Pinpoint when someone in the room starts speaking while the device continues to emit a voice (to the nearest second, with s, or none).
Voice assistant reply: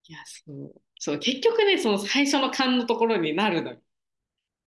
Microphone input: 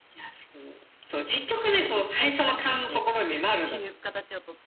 2 s